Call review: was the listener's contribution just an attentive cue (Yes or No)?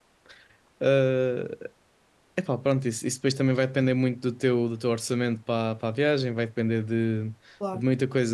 Yes